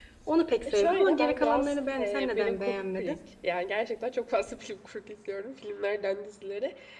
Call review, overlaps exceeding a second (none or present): present